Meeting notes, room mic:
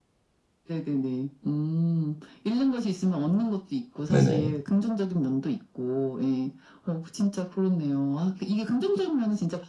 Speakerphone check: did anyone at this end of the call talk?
Yes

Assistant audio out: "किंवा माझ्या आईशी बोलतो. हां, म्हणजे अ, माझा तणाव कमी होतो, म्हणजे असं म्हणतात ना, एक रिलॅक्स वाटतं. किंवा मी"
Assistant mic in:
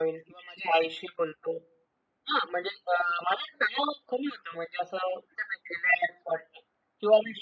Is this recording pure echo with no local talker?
Yes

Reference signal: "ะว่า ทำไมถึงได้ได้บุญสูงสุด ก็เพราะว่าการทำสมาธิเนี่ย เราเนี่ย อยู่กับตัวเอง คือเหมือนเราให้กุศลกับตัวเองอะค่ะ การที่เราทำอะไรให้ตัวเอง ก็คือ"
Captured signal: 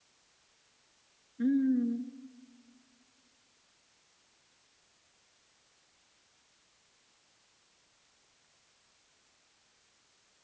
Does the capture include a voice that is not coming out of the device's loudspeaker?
Yes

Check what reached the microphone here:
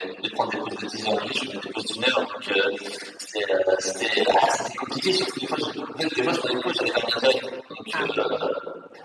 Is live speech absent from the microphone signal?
No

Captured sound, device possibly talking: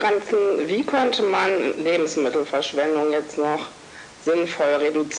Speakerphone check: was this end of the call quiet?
Yes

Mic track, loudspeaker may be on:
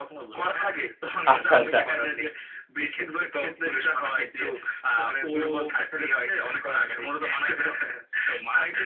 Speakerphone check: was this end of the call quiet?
No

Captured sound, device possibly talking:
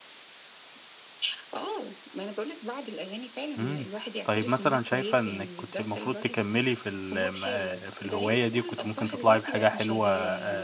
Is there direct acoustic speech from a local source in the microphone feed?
Yes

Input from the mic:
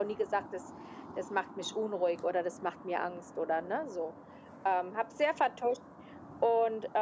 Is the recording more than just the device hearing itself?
No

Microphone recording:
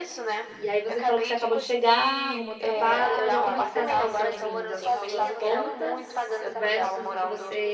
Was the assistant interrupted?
Yes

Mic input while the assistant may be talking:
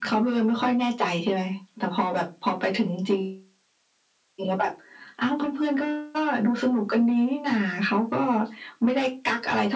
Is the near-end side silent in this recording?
Yes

